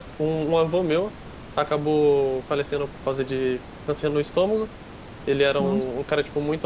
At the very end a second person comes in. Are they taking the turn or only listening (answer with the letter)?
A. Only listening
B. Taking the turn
A